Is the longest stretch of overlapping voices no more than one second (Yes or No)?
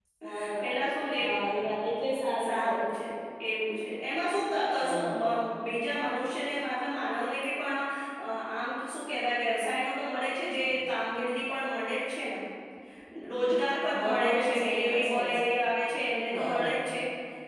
No